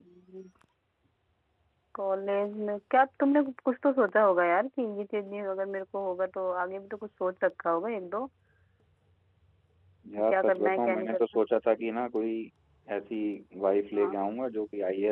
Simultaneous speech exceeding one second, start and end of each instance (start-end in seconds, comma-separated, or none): 10.2-11.4